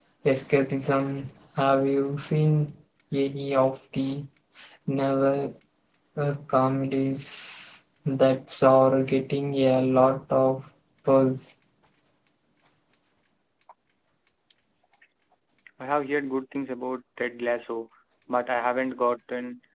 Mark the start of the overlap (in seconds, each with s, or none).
none